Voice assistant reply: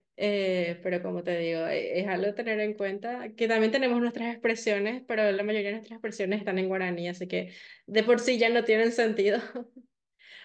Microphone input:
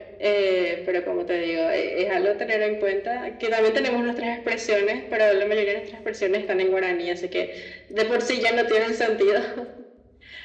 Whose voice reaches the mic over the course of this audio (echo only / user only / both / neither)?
echo only